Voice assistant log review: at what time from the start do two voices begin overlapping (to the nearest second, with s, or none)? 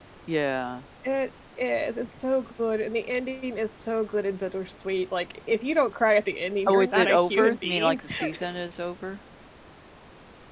7 s